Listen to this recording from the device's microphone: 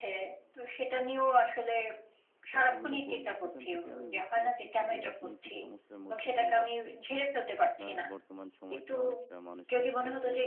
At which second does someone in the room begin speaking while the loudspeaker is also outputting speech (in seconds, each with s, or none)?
2.5 s